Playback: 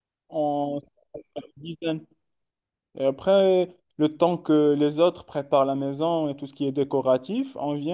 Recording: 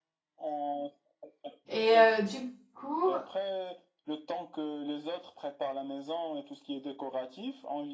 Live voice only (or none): et heu, du coup,